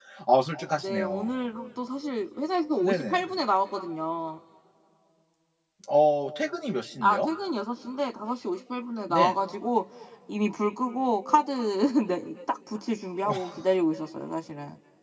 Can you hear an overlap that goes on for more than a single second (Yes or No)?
No